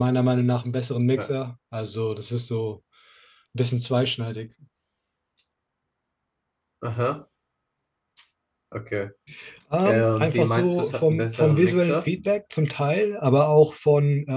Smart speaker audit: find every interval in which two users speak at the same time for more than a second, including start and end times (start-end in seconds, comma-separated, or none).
9.8-12.1